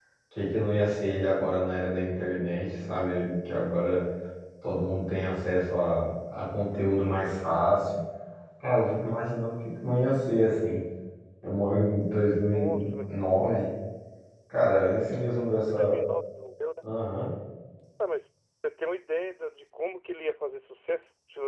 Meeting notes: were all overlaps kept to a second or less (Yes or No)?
Yes